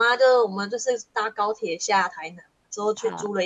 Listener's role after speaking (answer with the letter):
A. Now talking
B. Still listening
B